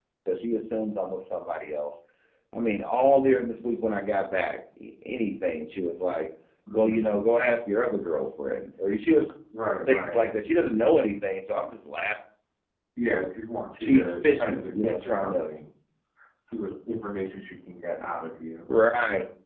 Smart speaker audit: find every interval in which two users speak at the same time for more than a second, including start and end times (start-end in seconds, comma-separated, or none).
13.8-15.4